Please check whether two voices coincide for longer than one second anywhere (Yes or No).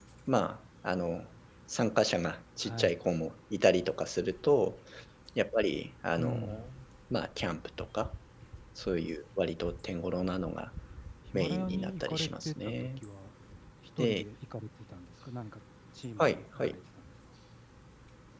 Yes